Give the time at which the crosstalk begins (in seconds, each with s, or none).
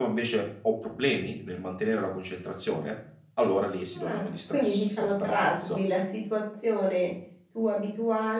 3.9 s